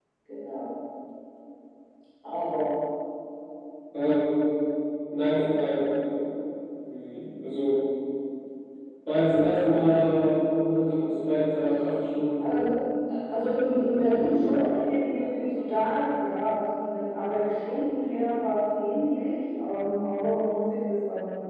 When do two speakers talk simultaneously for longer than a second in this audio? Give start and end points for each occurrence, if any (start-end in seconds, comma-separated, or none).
none